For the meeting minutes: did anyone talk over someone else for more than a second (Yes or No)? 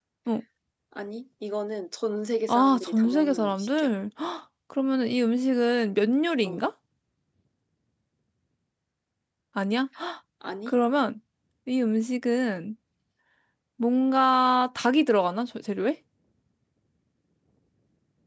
Yes